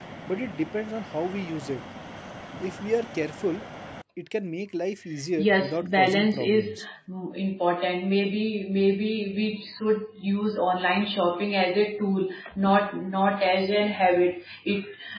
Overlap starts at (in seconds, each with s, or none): 5.4 s